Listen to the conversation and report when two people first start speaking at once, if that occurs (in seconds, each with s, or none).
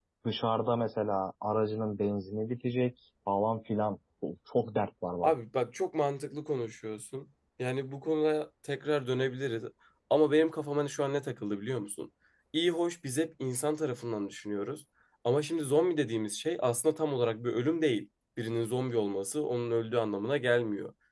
none